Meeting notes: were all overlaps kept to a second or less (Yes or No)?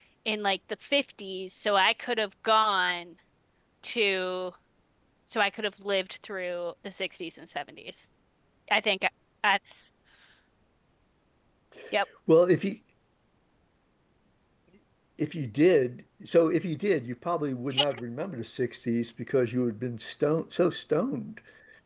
Yes